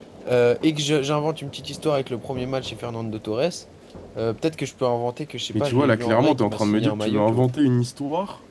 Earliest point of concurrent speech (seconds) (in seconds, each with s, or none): 5.5 s